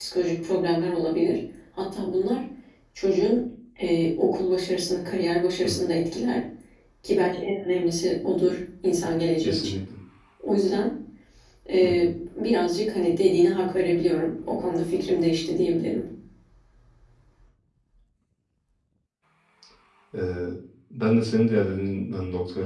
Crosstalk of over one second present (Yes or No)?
No